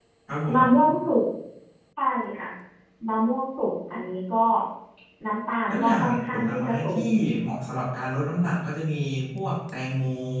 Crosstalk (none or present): present